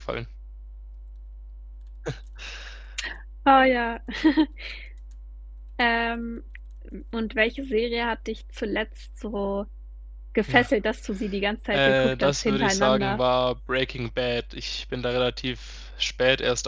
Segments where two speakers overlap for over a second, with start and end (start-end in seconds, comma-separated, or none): 11.7-13.2